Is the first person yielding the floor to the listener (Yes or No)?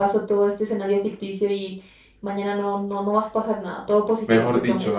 Yes